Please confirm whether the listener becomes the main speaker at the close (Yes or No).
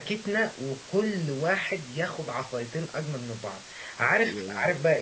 No